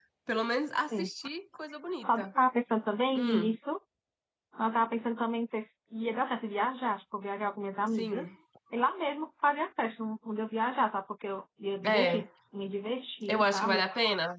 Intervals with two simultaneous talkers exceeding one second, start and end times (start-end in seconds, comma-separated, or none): none